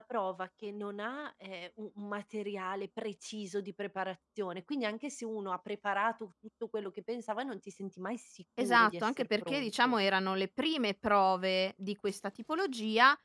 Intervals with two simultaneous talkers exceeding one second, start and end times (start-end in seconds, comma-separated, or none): 8.6-9.9